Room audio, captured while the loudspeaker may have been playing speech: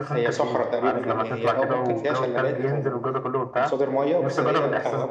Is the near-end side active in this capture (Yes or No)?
Yes